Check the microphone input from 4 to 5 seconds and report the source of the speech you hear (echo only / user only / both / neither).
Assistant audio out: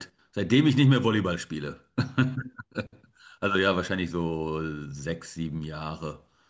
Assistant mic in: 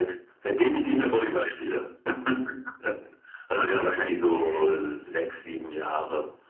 both